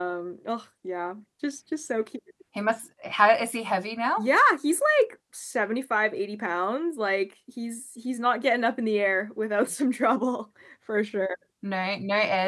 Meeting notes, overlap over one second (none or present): none